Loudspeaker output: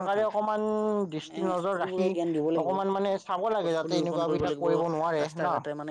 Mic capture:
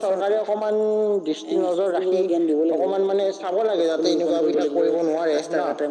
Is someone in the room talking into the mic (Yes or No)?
No